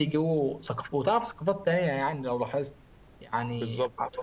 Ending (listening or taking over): listening